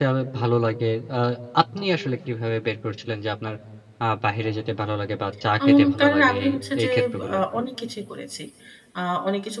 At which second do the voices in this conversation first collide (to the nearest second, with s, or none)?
6 s